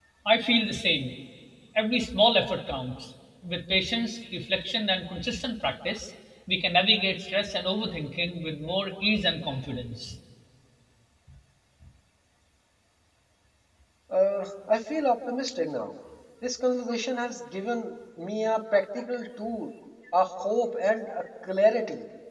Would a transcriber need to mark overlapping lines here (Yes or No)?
No